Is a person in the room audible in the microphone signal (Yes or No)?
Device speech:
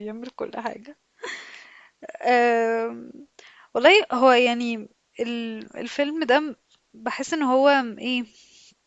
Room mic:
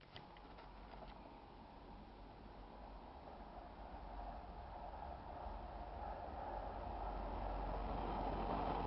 No